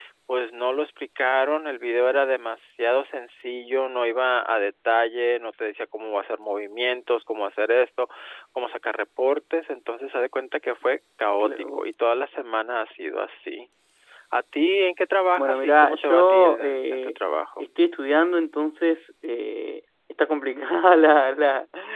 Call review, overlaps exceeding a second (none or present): present